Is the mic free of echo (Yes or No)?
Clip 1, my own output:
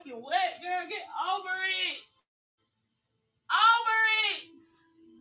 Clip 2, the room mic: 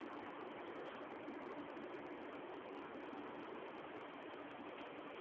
Yes